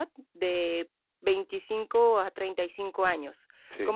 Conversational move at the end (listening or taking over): listening